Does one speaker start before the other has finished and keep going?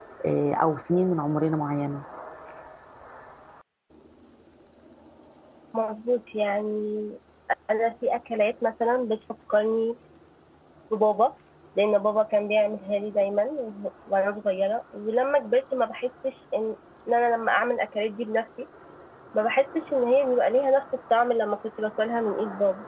No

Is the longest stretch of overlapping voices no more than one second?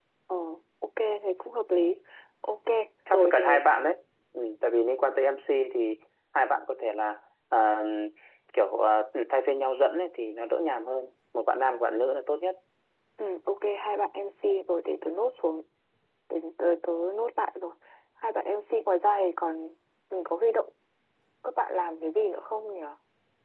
Yes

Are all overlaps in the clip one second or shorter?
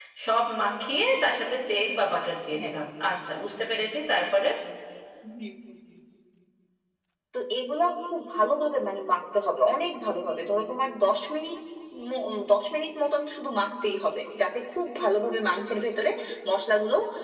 Yes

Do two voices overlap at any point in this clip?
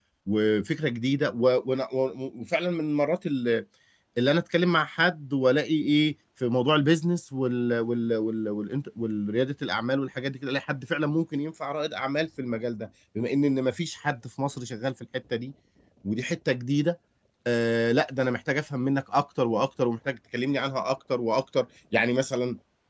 No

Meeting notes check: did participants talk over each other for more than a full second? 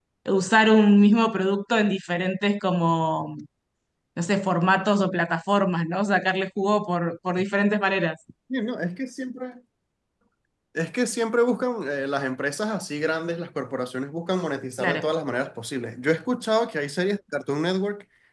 No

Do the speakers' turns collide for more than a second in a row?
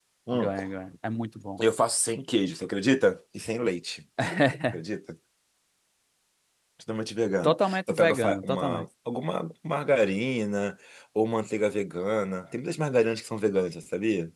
Yes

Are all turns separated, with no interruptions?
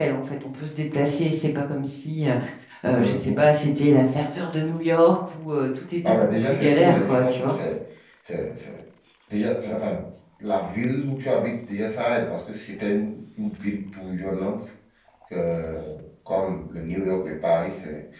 No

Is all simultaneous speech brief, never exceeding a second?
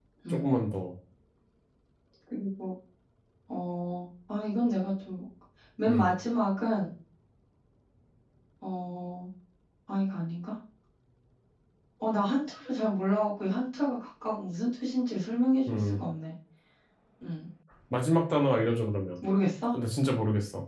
Yes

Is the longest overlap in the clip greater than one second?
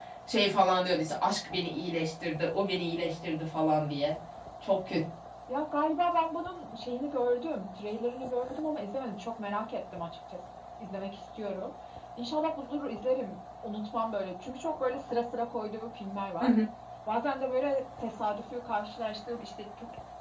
No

